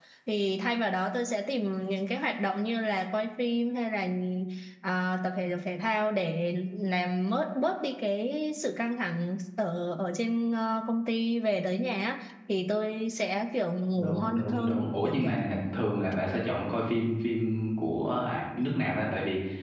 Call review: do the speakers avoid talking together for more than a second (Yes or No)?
No